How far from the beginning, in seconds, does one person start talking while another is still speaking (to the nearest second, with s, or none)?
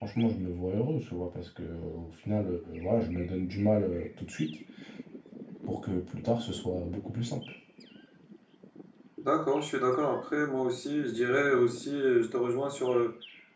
none